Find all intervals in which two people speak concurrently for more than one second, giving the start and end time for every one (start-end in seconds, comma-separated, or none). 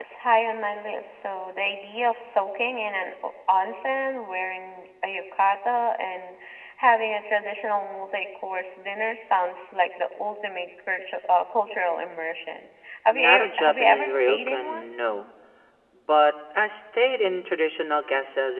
13.1-14.9